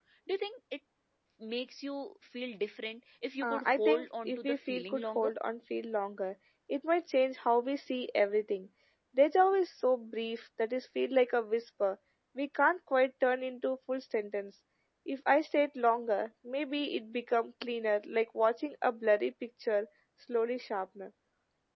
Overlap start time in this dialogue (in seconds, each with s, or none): 3.4 s